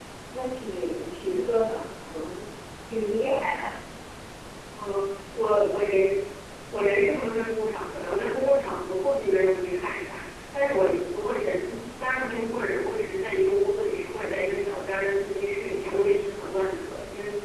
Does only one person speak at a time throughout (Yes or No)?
Yes